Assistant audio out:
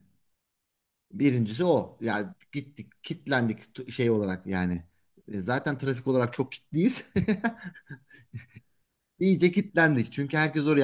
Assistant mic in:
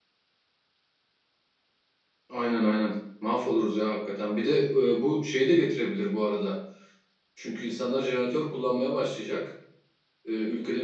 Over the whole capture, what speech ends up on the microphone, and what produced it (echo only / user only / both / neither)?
user only